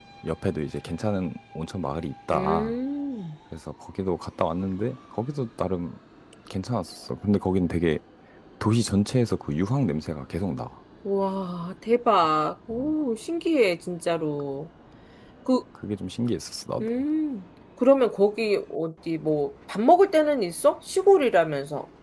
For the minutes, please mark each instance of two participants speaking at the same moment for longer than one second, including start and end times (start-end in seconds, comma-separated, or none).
none